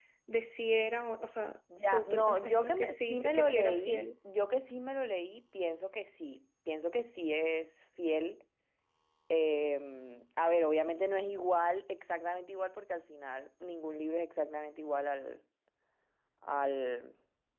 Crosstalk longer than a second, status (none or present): present